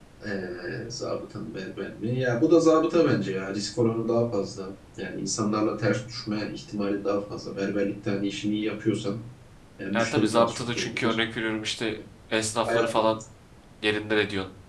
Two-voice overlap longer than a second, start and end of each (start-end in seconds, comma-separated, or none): 9.9-11.2